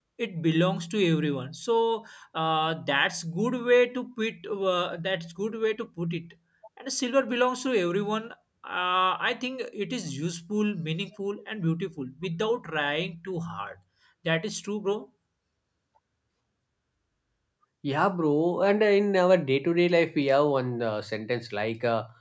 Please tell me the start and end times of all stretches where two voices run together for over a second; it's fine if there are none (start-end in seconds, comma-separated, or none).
none